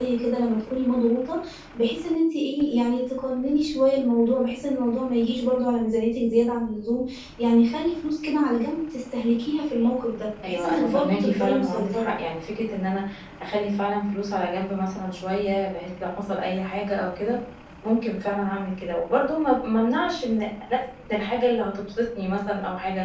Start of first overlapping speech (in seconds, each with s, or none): 10.4 s